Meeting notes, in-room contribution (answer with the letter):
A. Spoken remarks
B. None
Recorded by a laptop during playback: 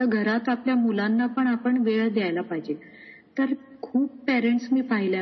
B